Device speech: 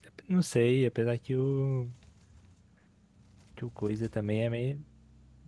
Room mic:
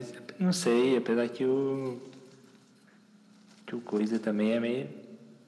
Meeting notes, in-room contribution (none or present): none